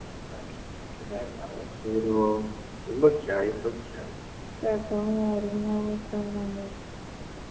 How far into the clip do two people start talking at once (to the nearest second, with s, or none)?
none